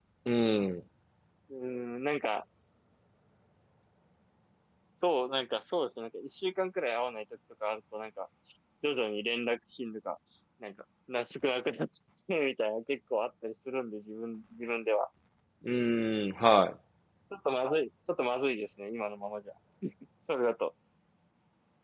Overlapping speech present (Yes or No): No